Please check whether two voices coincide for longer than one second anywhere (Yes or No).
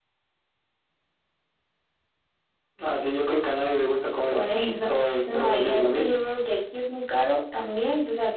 Yes